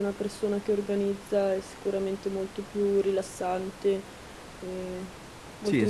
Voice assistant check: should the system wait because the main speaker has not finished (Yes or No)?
No